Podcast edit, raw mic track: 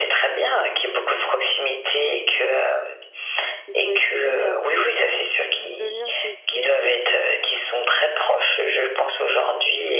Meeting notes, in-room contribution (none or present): present